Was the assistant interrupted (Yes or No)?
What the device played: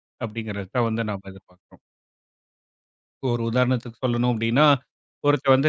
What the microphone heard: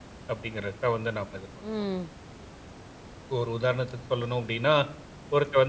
Yes